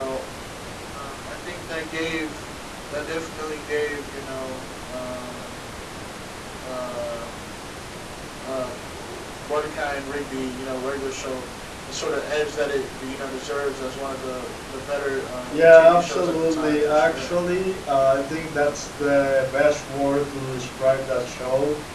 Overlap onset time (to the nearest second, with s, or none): 16 s